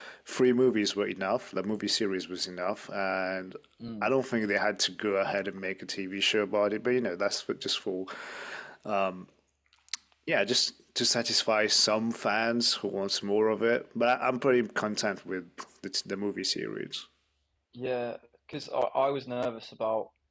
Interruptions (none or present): none